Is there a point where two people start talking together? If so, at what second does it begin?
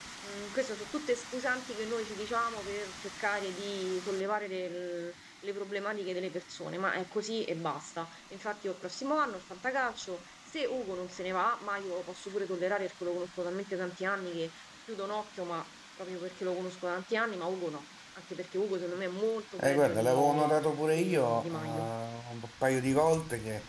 20 s

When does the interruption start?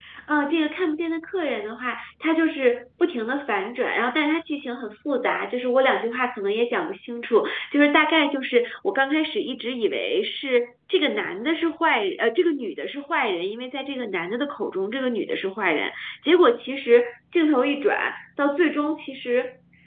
none

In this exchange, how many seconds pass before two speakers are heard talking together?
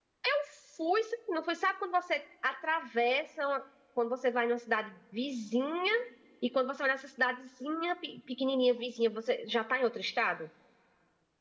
none

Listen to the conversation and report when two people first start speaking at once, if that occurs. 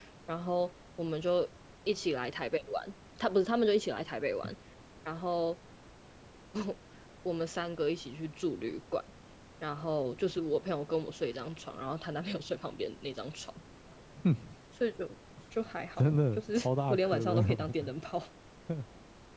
16 s

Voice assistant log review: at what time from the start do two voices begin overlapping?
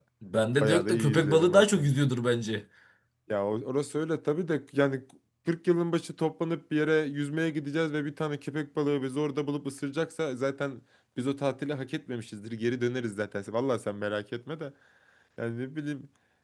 1 s

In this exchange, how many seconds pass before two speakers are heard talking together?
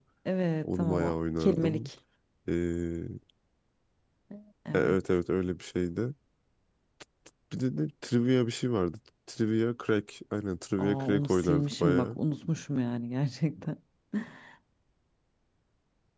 1 s

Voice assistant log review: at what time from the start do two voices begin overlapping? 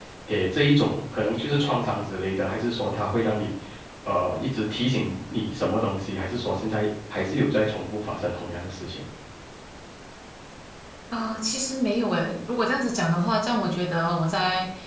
none

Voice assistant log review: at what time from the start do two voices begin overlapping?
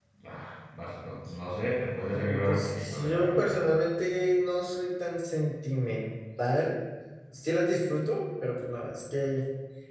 2 s

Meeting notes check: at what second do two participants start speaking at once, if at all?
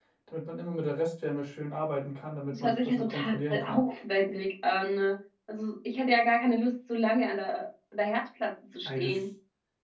3 s

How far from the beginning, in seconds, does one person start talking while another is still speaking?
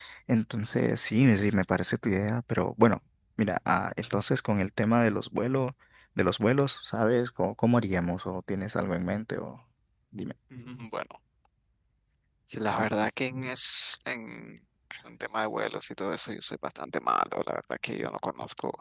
none

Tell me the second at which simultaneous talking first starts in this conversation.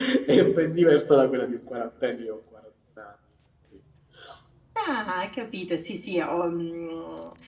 none

